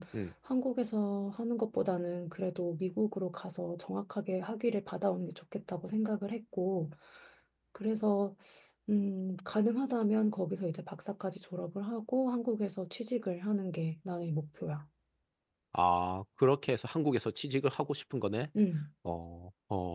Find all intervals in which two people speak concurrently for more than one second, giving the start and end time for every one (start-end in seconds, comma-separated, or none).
none